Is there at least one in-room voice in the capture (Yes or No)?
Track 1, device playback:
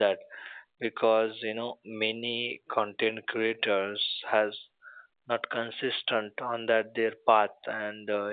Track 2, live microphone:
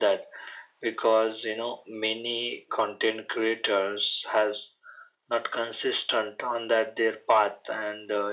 No